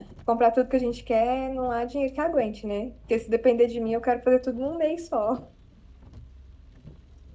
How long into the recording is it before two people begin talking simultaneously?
none

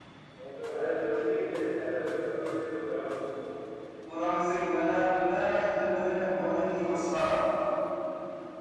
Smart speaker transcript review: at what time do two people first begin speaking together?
none

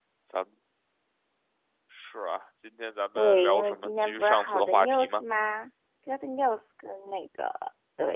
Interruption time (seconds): 3 s

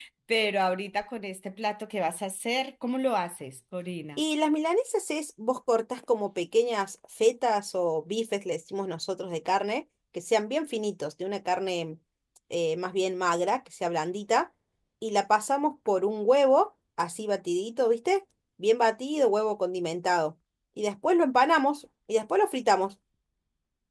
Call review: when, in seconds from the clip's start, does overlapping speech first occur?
none

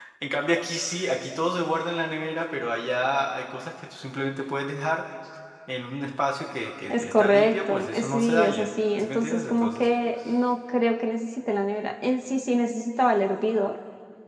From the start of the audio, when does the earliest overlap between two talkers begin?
7 s

